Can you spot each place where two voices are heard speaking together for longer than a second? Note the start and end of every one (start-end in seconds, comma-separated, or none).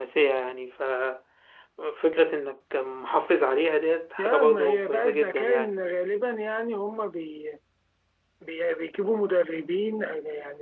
4.2-5.7